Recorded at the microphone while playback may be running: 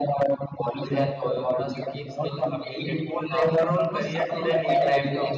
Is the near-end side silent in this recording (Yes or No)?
No